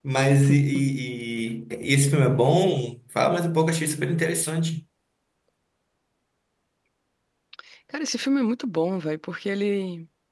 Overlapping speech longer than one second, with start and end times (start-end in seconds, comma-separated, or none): none